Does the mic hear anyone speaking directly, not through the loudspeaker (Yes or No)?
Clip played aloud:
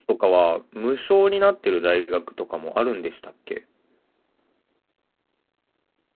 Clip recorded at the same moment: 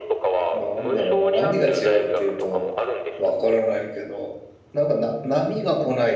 Yes